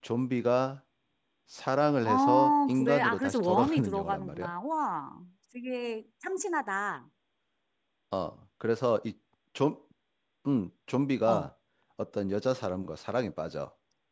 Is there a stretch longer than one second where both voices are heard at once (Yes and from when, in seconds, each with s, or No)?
Yes, from 2.0 s